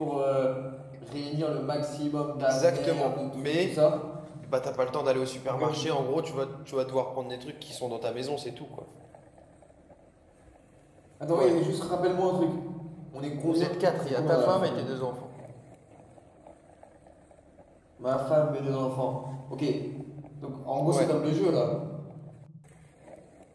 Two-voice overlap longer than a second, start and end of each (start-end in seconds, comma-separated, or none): 2.4-3.8, 13.4-14.9